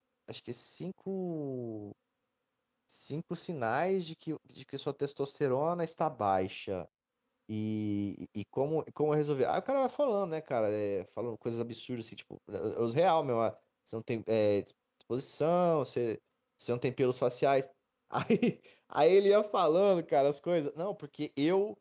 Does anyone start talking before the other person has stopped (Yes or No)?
No